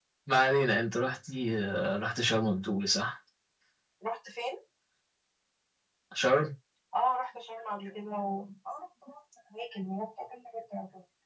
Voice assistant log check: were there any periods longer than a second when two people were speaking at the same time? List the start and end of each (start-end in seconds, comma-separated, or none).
none